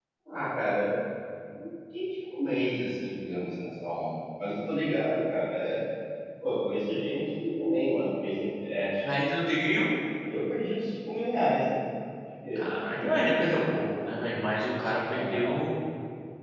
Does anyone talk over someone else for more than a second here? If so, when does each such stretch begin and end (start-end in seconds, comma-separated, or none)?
12.6-13.8